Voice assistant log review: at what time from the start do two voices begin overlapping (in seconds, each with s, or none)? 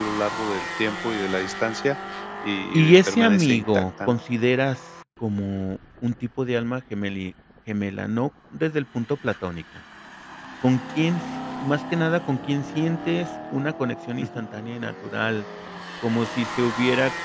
2.7 s